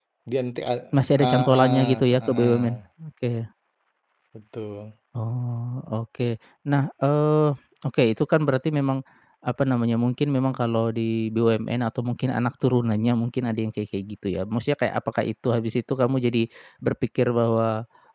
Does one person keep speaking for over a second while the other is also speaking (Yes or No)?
Yes